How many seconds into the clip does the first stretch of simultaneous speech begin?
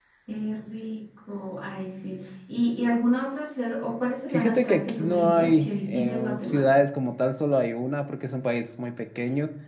4.3 s

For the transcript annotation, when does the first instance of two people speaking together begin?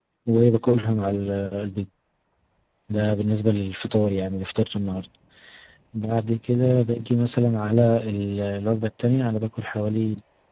none

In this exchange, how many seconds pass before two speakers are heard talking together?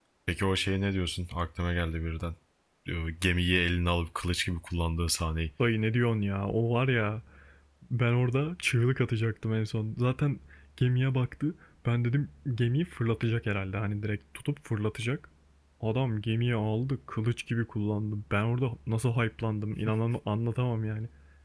none

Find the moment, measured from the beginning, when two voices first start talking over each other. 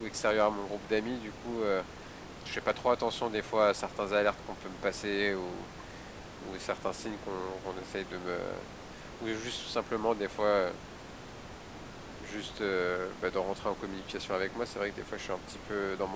none

